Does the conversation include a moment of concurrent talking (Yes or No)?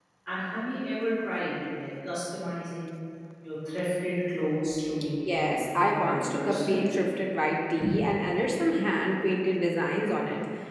Yes